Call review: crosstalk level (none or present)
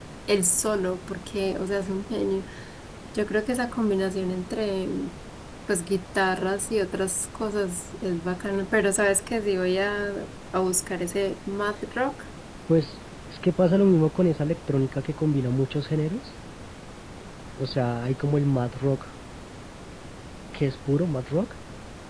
none